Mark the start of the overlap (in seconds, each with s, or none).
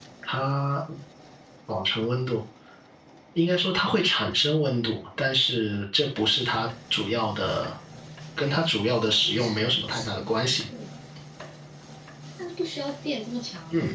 9.0 s